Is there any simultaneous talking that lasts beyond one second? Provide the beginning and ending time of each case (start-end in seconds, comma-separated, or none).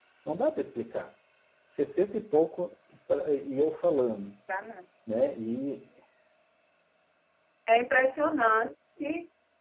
none